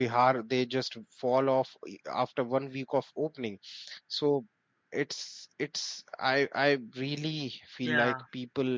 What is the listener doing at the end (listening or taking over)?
listening